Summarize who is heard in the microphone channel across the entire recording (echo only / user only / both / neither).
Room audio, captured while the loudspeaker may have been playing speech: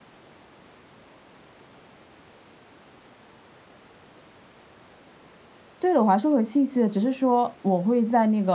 user only